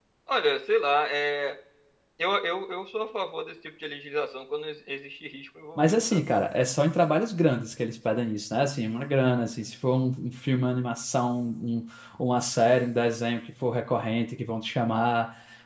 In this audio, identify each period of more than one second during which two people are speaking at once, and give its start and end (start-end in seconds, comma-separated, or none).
none